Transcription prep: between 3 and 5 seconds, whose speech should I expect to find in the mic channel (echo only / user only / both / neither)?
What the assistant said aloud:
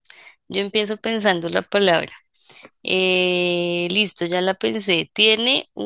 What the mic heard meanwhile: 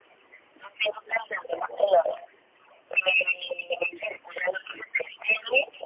echo only